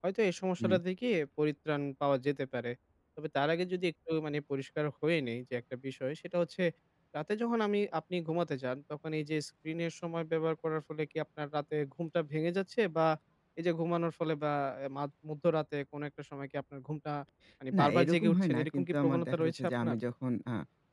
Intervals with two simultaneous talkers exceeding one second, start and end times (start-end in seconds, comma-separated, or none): 17.8-20.0